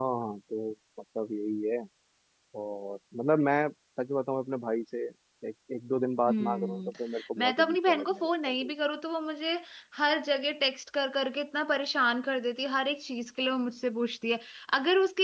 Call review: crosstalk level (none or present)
present